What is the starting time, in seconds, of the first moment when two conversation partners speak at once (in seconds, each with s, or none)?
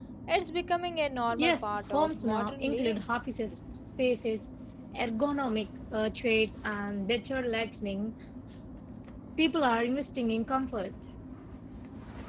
1.3 s